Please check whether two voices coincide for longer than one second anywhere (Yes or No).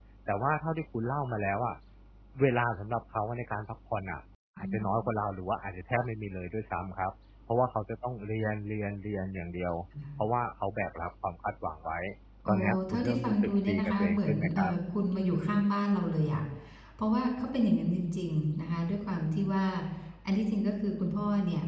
Yes